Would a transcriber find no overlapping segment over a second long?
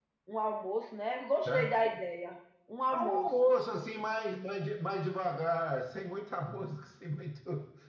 Yes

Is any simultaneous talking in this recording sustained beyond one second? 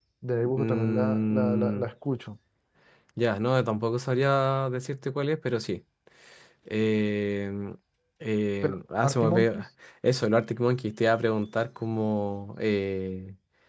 Yes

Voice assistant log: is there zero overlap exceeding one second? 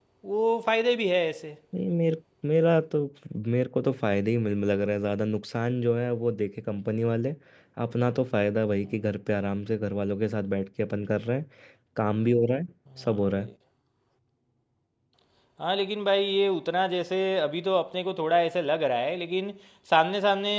Yes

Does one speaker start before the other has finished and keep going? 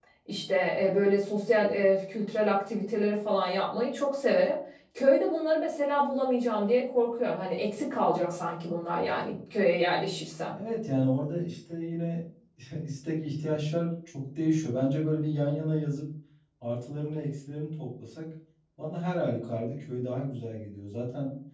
No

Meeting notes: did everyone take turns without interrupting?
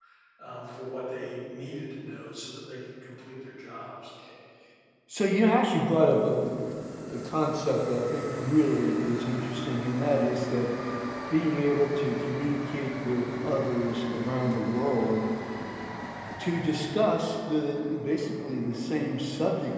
Yes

